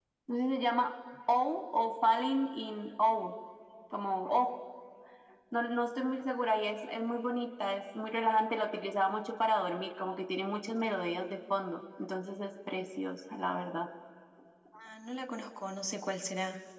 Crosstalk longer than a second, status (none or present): none